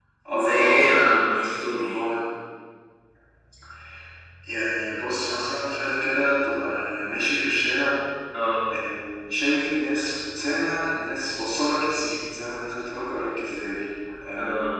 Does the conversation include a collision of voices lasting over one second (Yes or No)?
Yes